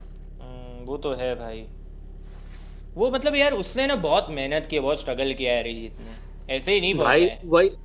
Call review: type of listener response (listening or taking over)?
taking over